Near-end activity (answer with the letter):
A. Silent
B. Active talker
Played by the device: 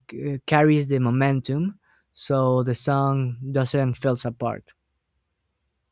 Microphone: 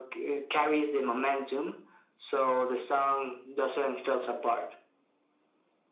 A